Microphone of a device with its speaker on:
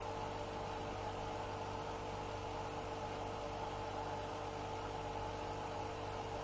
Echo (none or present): none